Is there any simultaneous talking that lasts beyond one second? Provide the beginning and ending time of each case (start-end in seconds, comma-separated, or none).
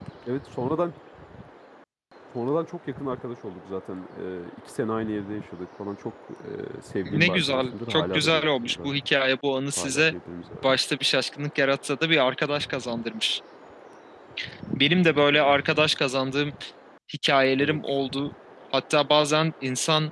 7.0-8.9